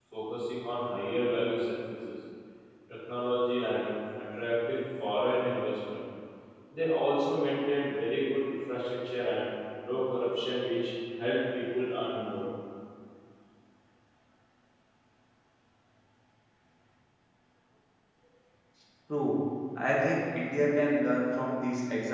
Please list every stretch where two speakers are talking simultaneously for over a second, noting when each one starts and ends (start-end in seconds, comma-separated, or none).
none